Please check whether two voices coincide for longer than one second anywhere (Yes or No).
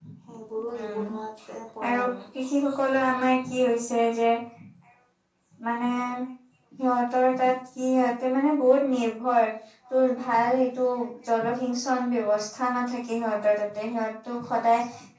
No